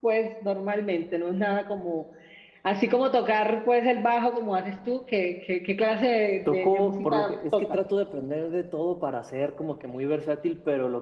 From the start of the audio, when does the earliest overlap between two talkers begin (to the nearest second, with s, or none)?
6 s